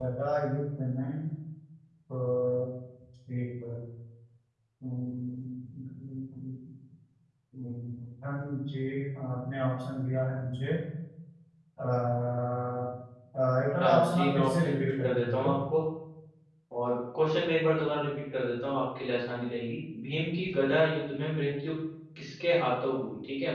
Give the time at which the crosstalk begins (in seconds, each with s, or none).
13.7 s